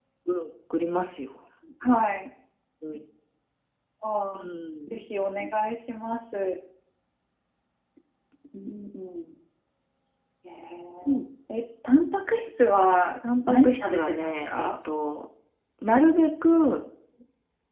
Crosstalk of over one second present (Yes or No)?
Yes